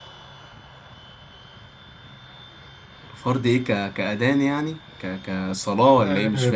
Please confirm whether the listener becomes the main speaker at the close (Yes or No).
Yes